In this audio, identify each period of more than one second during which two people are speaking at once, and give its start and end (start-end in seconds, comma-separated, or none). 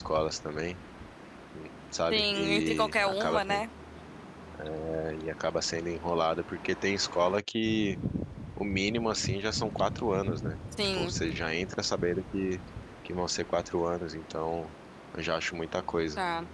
2.1-3.6